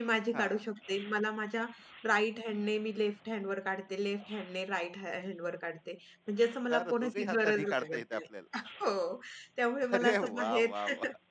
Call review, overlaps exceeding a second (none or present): present